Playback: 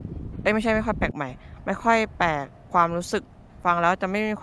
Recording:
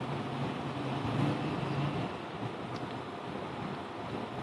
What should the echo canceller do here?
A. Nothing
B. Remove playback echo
A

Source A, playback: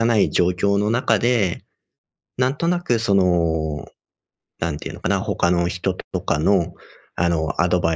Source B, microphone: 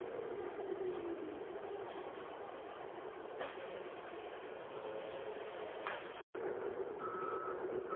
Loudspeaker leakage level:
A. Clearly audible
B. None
B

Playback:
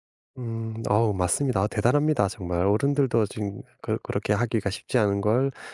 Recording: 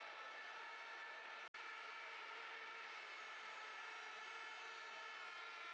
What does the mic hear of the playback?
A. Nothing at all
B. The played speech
A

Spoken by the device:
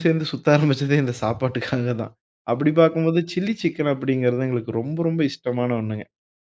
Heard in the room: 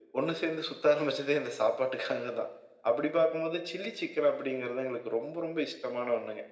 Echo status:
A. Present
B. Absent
A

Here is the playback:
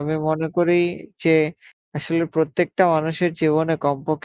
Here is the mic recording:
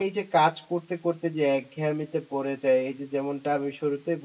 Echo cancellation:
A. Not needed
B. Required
A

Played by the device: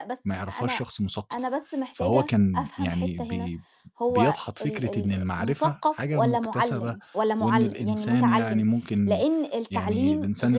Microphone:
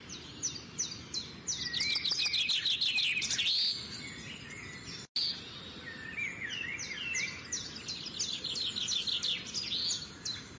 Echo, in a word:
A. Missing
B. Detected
A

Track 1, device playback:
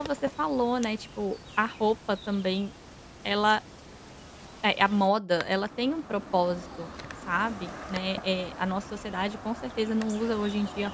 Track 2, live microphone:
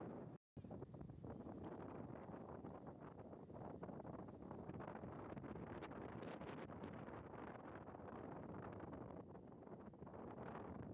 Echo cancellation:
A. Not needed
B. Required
A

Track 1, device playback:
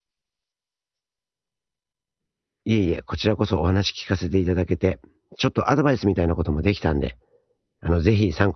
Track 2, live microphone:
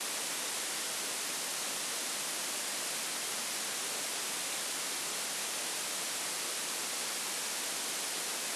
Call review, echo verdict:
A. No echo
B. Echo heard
A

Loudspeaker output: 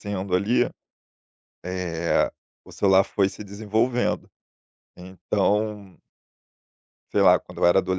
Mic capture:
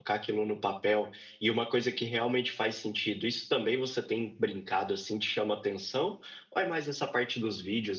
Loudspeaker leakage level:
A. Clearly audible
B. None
B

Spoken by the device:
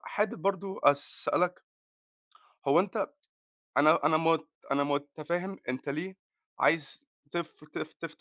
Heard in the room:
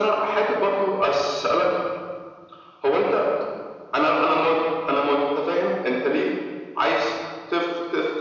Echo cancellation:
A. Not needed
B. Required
B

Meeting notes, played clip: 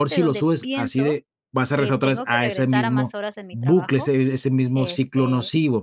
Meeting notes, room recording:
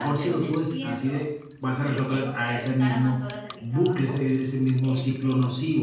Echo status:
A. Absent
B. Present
B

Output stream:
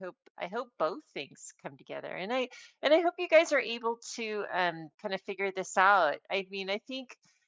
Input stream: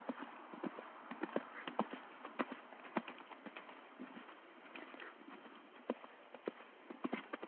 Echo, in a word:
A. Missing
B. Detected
A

